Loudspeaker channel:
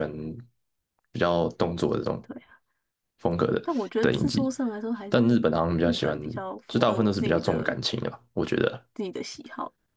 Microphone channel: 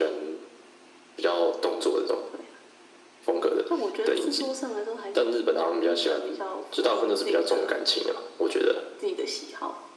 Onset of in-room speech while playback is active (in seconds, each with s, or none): none